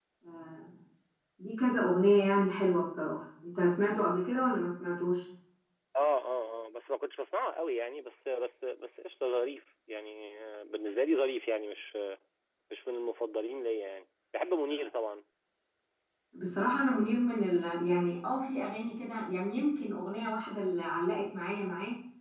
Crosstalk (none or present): none